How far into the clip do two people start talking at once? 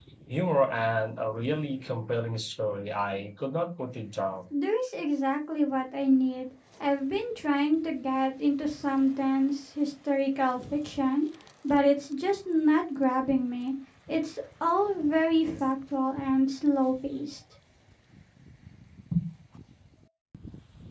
none

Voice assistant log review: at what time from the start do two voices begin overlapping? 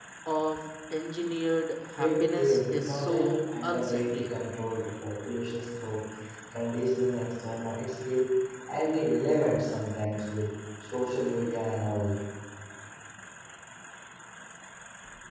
2.0 s

